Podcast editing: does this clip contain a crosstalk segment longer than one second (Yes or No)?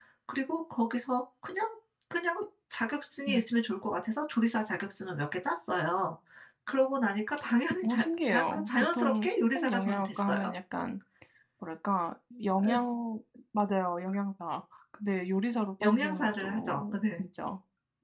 Yes